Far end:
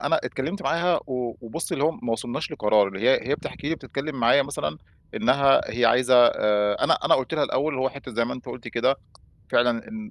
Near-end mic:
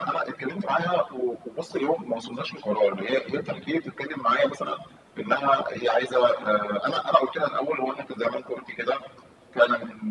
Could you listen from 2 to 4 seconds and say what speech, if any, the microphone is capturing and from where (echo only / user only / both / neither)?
echo only